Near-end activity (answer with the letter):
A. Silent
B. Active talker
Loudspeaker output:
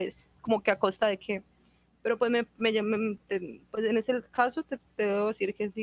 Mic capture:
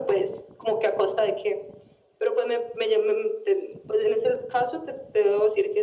A